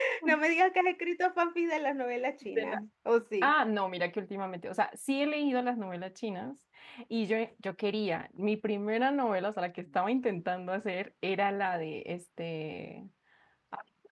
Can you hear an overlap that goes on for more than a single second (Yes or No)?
No